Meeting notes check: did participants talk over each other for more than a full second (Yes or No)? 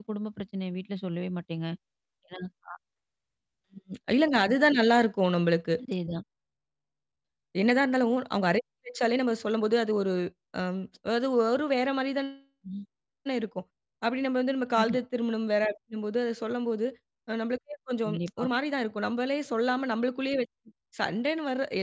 No